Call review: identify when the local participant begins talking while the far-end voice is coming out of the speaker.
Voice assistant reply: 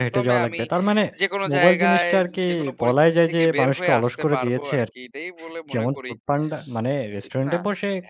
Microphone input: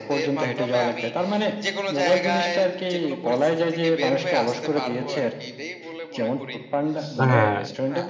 7.2 s

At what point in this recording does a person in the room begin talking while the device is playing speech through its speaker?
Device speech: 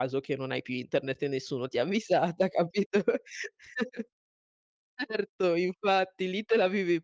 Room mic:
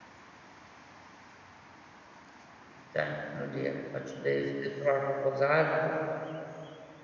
2.8 s

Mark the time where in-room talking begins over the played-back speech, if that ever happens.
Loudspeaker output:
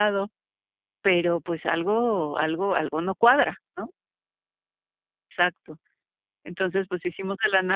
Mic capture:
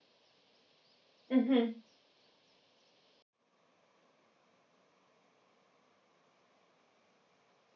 1.3 s

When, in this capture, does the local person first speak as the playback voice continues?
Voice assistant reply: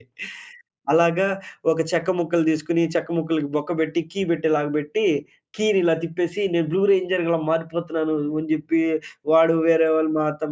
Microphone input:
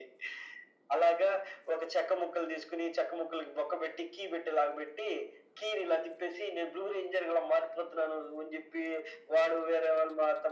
none

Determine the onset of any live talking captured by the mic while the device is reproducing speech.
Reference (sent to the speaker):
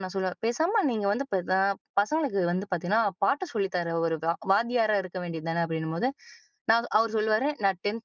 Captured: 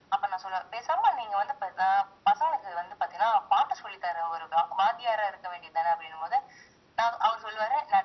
none

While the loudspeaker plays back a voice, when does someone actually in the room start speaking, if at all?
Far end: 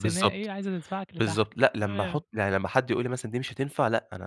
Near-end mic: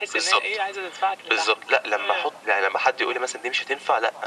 none

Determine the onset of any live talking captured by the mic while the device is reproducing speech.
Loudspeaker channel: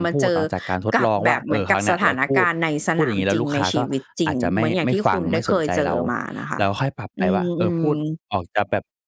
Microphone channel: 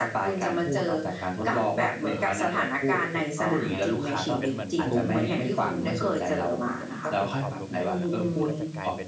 3.1 s

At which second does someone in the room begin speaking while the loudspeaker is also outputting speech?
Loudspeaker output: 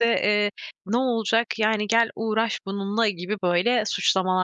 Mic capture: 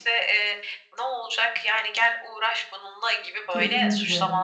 3.5 s

